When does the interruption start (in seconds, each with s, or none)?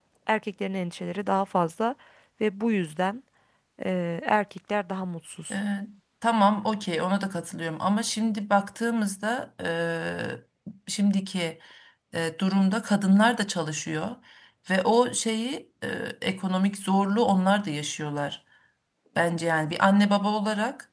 none